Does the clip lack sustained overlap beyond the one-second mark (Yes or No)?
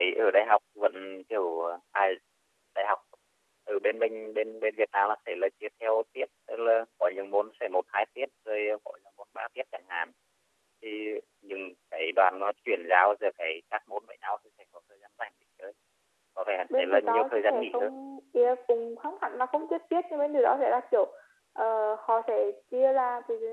No